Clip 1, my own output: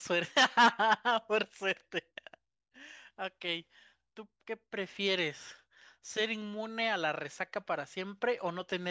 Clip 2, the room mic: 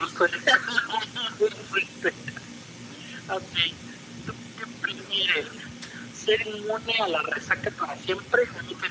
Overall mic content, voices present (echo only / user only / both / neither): echo only